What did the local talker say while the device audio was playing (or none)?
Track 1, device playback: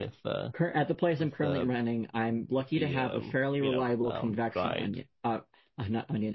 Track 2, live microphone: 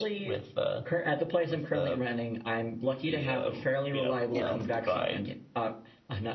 Yeah, that's a good point.